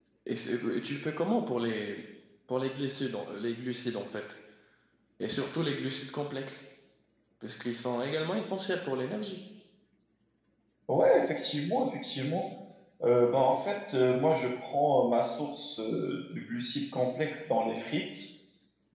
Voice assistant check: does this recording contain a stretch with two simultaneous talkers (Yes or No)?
No